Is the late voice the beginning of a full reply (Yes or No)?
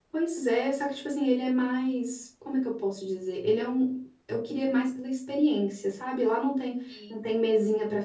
No